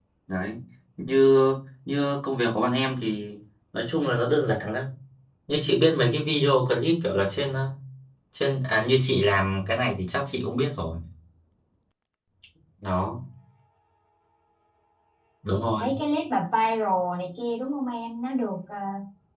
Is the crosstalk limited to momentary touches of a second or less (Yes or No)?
Yes